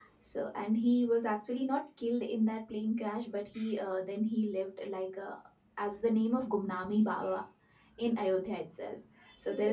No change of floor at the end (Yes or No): Yes